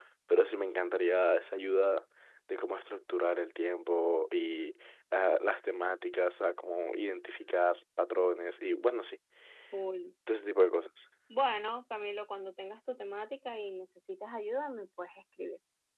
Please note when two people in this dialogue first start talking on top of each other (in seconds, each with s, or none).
none